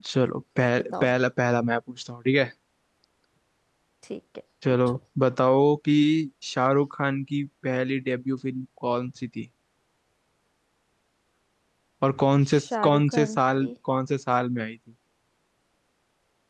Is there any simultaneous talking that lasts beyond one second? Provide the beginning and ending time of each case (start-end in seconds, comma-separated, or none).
12.5-13.7